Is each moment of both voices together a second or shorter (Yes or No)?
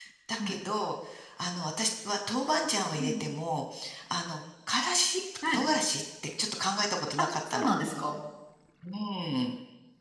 Yes